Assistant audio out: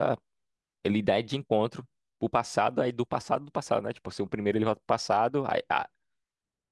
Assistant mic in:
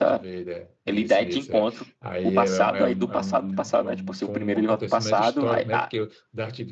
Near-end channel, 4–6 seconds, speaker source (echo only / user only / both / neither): both